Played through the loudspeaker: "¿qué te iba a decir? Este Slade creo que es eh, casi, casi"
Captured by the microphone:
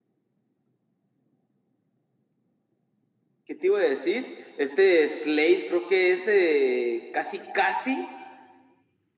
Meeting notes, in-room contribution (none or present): none